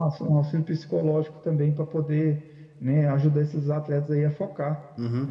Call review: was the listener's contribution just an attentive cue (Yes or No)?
No